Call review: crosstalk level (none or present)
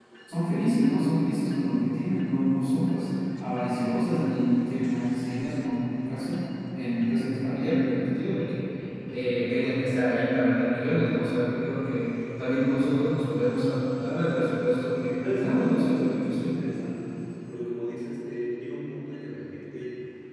present